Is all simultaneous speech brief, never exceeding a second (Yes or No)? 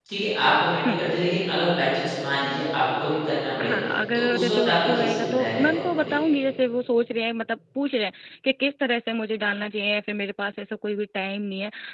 No